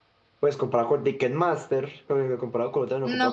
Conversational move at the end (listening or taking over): listening